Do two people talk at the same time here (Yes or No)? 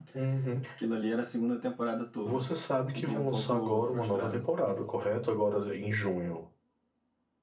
Yes